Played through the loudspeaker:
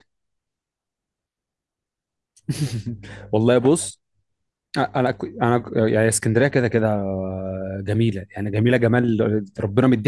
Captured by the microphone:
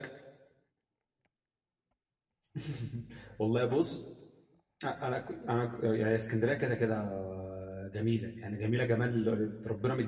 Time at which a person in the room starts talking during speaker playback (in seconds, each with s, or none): none